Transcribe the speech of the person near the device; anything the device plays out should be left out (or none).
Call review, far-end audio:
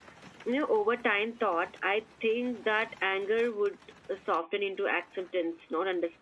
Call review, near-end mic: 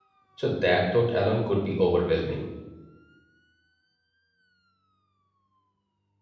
So, that thought alone could be overwhelming.